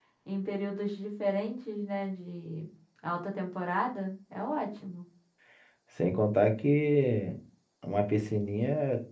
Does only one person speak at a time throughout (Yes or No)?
Yes